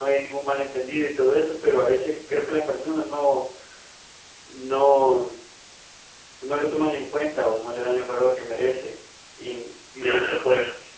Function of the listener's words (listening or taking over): listening